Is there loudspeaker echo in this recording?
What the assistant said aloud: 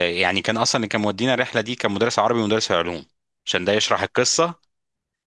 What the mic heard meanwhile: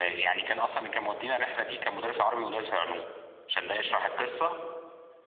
Yes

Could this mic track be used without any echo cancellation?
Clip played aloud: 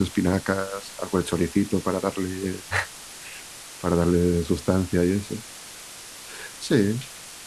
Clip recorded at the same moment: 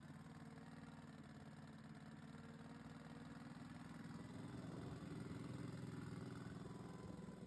Yes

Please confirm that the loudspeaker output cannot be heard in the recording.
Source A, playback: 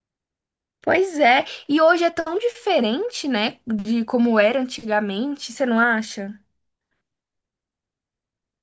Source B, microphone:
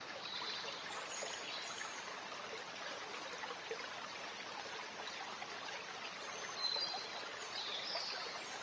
Yes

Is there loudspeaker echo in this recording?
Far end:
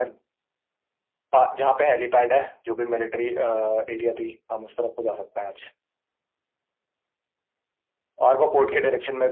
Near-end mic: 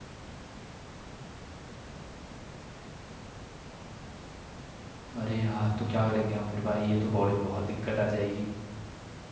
No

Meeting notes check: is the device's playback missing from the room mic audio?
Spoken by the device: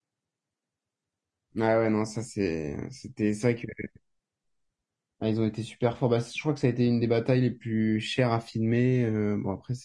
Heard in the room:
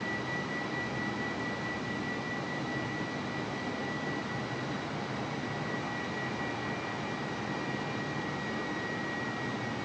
Yes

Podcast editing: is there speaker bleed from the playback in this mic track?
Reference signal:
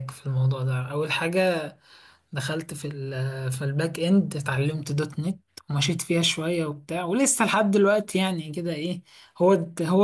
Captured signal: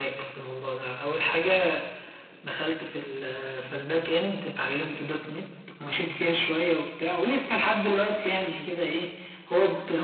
Yes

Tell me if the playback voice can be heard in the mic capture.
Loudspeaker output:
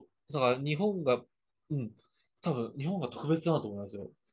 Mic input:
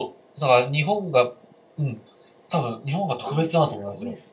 Yes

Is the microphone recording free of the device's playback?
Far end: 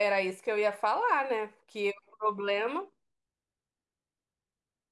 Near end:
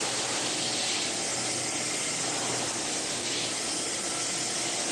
Yes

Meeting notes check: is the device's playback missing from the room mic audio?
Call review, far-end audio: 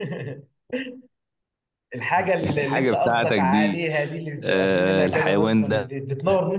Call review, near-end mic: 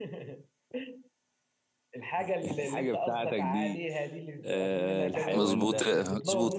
No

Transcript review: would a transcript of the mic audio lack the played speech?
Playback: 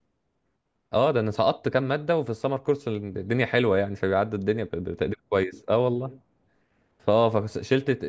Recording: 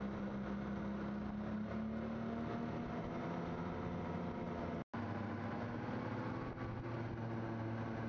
Yes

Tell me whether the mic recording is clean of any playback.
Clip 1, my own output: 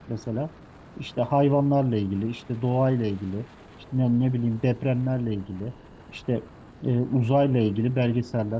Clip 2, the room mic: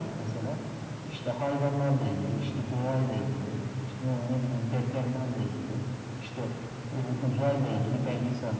No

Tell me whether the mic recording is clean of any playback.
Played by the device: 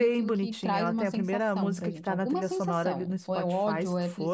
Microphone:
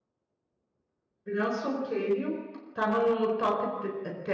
Yes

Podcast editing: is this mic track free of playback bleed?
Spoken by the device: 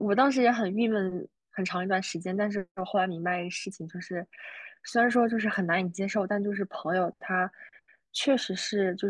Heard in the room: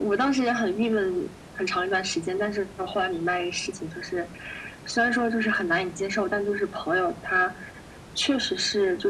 No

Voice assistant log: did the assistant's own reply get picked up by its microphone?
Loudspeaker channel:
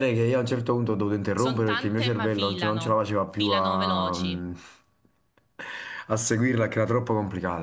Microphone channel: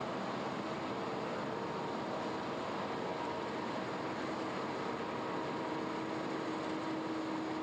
No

